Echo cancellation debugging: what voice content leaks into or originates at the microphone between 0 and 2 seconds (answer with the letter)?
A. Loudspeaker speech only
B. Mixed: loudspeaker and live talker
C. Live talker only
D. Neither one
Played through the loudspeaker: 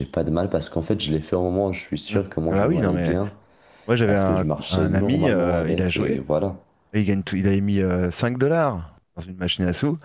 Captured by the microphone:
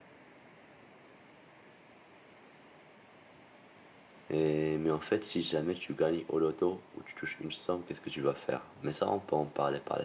D